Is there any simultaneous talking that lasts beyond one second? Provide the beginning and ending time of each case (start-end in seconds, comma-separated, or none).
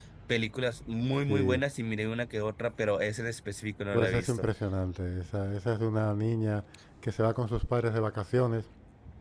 none